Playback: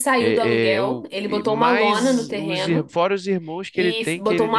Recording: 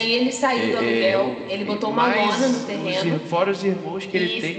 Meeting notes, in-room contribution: none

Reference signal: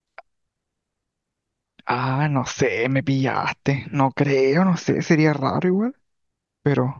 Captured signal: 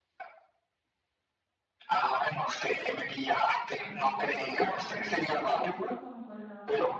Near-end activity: present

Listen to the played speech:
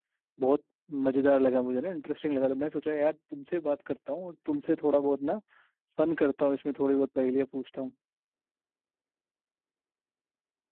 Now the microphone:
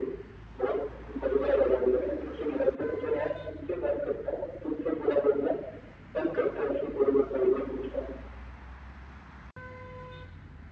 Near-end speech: none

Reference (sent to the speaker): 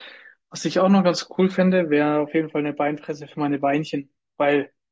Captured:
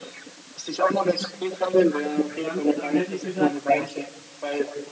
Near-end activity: present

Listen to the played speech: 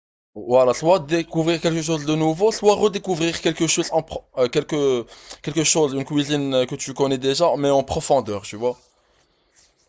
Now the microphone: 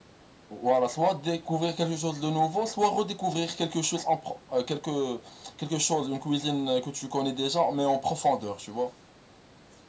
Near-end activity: none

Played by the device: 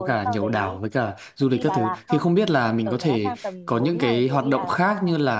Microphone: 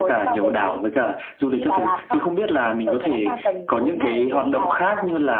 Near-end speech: none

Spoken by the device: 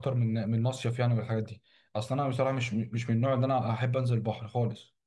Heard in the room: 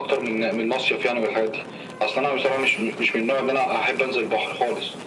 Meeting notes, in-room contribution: none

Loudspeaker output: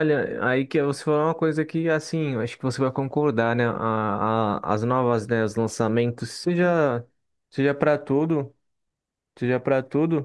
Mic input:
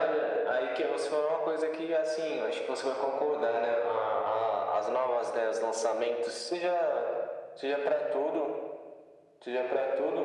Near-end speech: none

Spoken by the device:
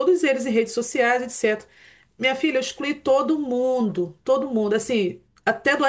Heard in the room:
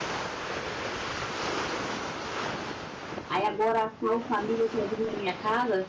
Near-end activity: present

